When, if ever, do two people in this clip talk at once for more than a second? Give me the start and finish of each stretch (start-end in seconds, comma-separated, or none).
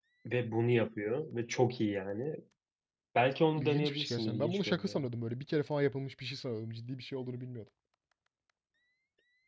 3.5-5.1